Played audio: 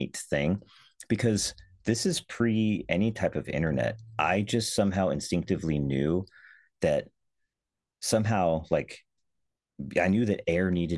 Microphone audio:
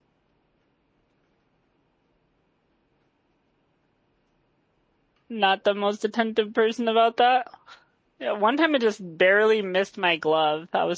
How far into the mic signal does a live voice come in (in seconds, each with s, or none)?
5.3 s